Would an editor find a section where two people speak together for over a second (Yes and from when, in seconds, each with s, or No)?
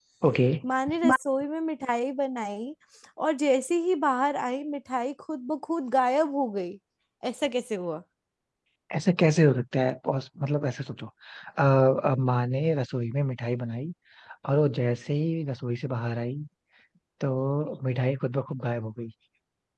No